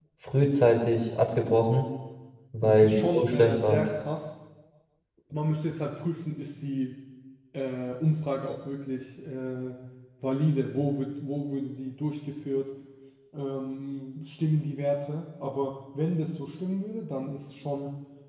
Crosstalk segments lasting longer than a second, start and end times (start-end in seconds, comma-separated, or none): 2.6-3.8